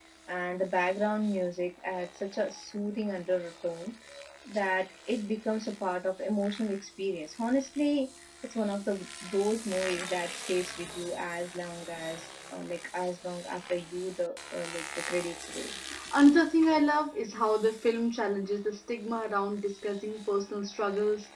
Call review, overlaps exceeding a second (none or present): none